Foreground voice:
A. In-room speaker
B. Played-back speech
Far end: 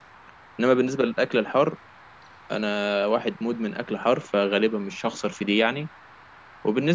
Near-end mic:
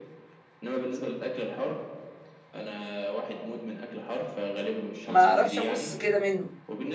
A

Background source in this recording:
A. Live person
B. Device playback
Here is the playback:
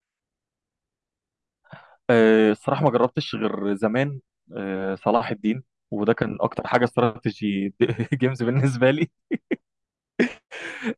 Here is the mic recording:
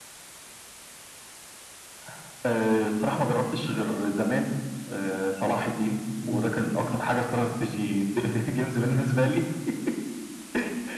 A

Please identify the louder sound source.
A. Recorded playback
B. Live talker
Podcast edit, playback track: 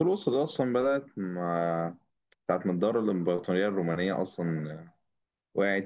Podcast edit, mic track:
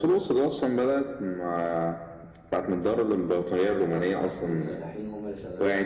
A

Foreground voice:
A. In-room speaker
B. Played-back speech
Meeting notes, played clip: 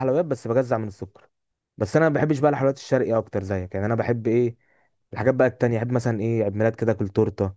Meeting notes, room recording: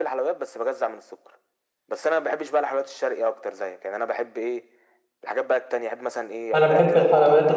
A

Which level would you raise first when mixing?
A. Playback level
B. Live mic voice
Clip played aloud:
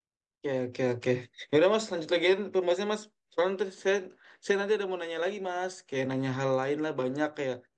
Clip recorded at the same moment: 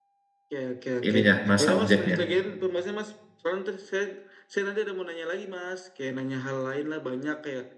A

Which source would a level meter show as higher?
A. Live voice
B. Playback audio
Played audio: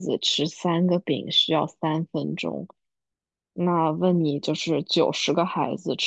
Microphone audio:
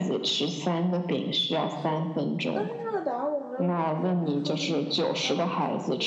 B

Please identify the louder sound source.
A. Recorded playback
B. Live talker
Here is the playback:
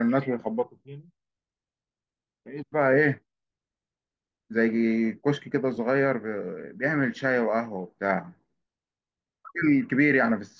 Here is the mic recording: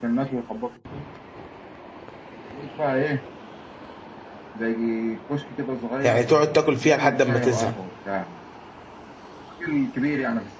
B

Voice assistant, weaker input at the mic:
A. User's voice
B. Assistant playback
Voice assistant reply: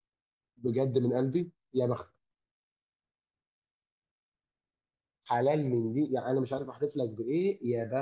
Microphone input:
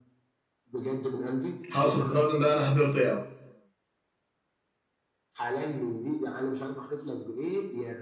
B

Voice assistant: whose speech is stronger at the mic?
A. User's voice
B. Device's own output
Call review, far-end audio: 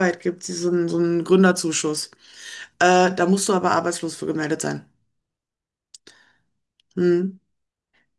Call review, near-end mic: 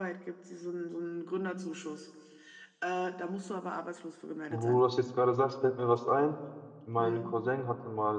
A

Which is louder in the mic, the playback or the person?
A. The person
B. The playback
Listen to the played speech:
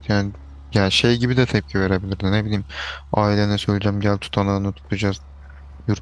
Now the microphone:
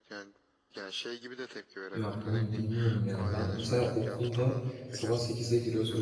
A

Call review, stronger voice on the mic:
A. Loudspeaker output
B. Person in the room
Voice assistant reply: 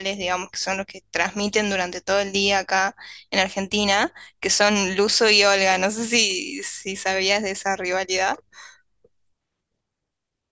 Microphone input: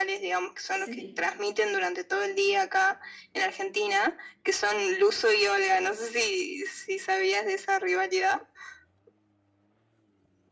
A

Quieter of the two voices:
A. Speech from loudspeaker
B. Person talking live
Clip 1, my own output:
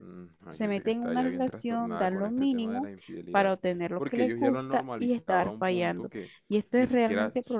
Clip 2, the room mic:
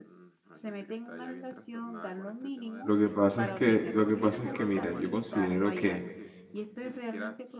A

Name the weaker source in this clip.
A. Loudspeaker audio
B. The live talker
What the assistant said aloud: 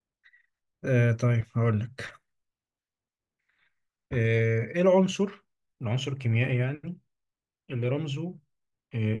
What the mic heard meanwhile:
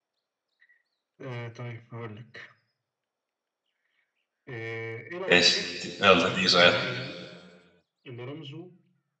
A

